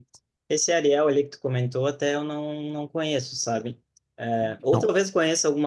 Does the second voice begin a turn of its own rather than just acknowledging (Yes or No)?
No